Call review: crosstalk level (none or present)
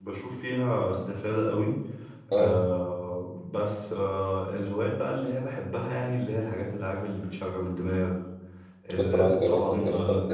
present